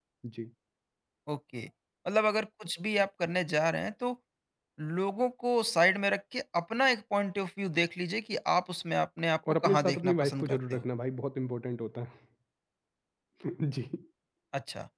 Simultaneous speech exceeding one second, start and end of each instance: 9.6-10.8

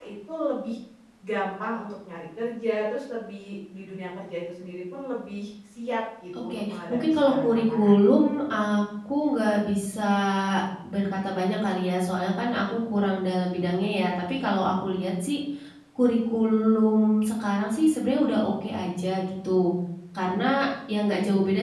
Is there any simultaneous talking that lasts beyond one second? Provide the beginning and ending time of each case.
6.4-7.9

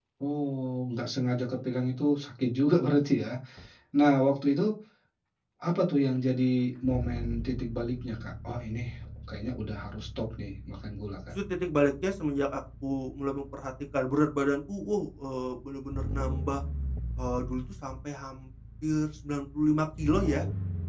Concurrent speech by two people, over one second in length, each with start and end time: none

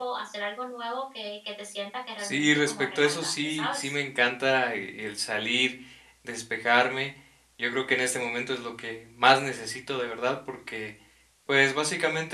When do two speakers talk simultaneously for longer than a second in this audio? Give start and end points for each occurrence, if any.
2.2-4.0

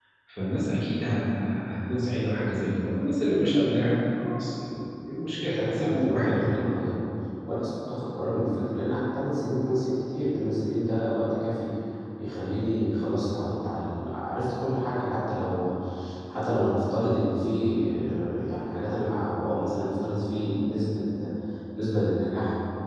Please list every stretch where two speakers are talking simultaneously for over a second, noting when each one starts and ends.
5.4-6.6

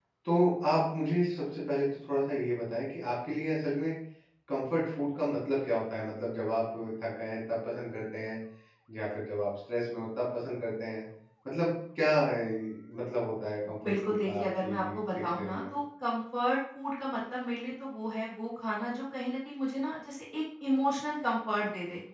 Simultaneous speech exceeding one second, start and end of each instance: 13.8-15.6

